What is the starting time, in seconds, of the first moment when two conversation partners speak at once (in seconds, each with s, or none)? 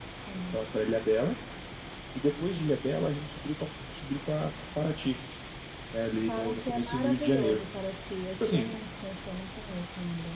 6.3 s